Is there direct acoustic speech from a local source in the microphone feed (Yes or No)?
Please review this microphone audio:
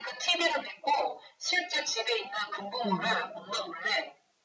Yes